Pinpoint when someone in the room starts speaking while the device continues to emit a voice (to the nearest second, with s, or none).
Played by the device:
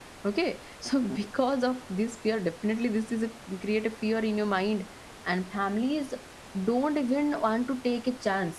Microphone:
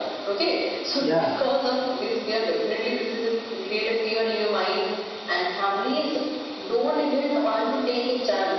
1 s